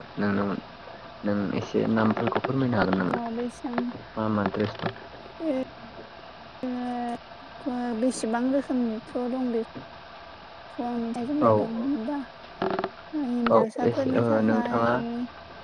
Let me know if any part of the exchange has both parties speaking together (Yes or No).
Yes